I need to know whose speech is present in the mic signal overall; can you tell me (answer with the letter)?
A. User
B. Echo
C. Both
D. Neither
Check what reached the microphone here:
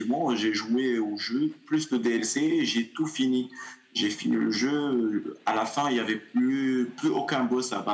B